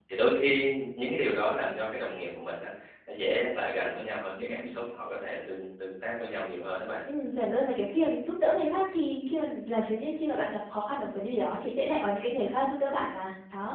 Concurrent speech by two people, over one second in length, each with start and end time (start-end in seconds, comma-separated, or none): none